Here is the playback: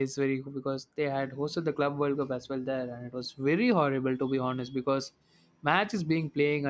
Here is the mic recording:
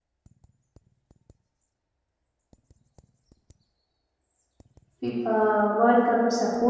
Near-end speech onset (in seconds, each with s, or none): 5.0 s